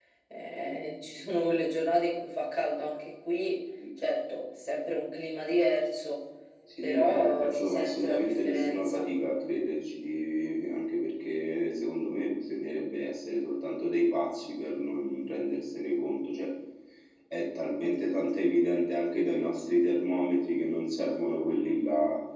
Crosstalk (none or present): present